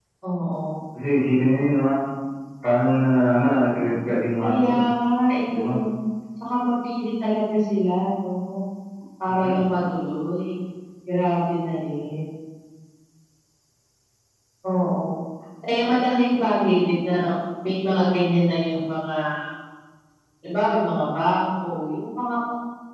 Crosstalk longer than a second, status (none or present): none